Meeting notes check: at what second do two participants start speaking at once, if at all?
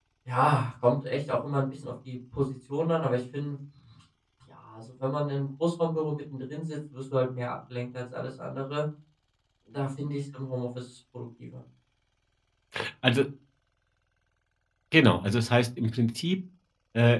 none

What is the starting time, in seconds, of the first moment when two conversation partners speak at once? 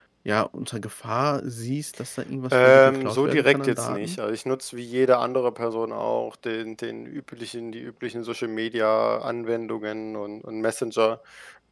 3 s

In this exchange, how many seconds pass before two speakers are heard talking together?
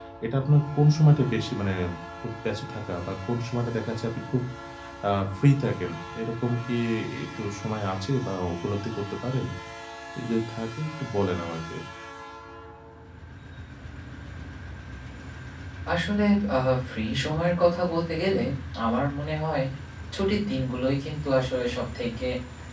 none

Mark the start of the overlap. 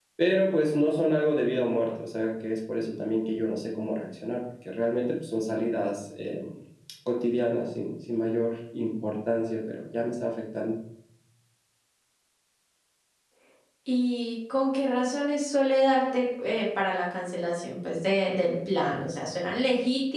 none

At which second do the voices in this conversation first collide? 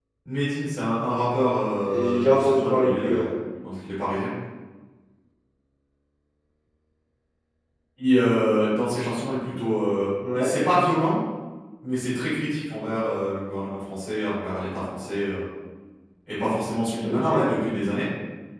2 s

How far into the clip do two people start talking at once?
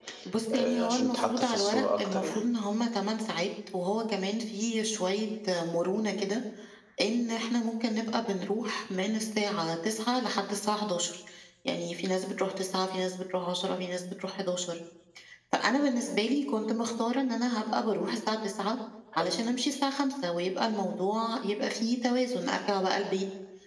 1 s

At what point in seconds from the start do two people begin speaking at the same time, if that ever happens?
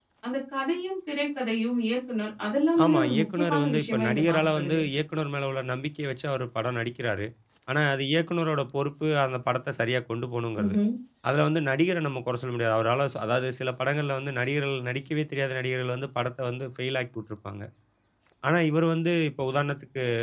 3 s

